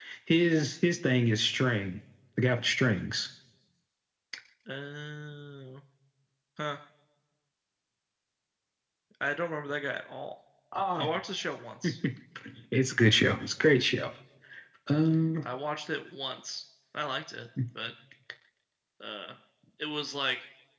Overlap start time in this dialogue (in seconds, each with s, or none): none